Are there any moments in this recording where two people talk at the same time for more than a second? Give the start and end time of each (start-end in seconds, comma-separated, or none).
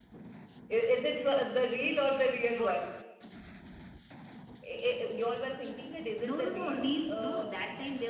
6.3-7.6